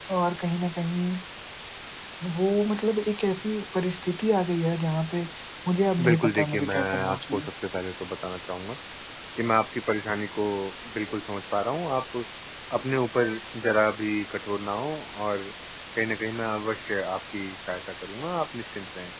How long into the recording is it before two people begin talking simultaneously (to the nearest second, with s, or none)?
6 s